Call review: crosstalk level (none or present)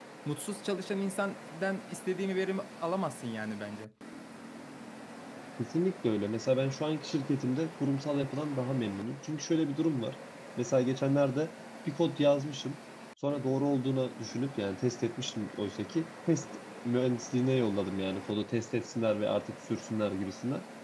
none